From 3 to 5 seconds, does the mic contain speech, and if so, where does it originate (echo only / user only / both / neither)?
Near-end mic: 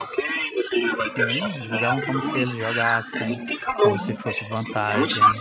both